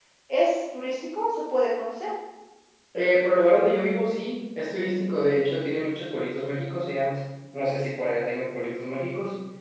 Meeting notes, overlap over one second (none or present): none